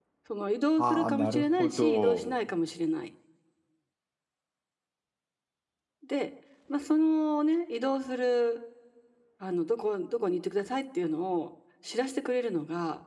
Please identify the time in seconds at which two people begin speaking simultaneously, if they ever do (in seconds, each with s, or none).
0.8 s